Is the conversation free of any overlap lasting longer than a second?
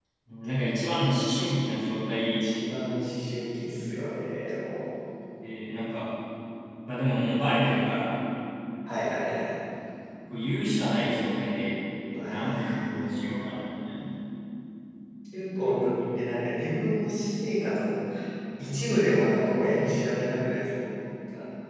No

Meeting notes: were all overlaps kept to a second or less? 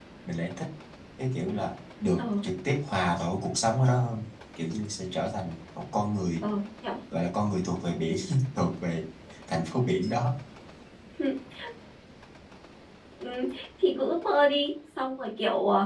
Yes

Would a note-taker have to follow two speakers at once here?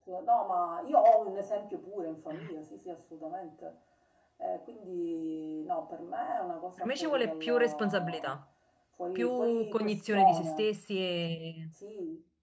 Yes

